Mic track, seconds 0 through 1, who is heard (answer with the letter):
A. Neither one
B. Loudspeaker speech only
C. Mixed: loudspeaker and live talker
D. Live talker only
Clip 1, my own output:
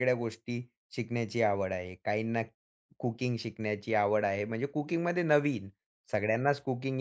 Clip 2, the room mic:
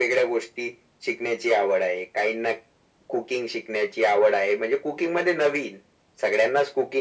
B